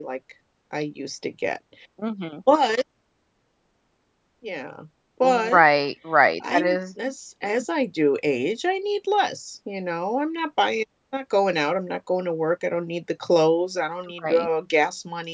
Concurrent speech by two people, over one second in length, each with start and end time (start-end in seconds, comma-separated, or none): none